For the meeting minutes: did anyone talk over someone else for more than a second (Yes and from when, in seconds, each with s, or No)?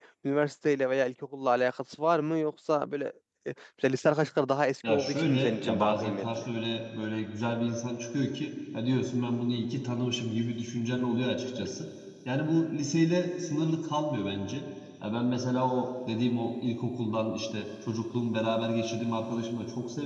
Yes, from 4.8 s